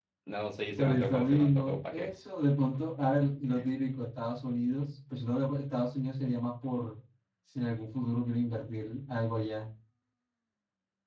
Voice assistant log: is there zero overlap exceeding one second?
No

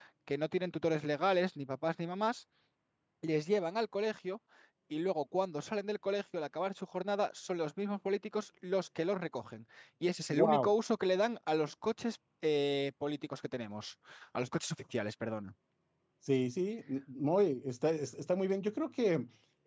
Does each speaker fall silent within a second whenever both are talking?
Yes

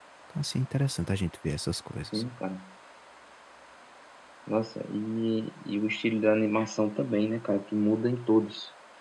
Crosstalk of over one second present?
No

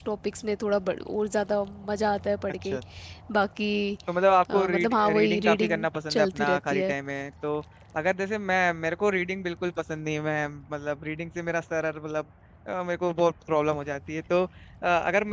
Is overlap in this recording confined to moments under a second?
No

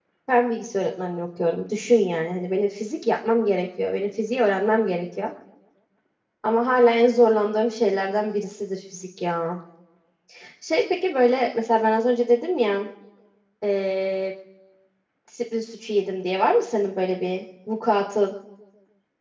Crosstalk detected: No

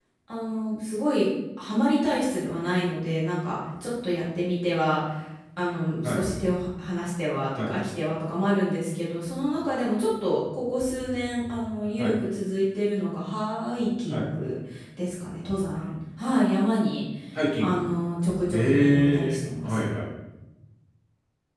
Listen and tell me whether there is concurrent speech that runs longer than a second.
Yes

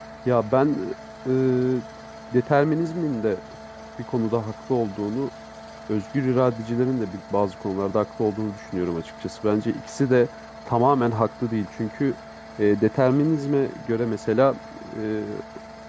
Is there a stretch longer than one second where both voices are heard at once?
No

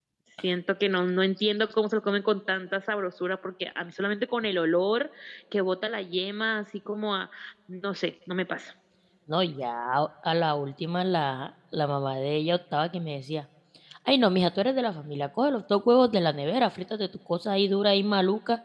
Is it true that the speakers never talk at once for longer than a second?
Yes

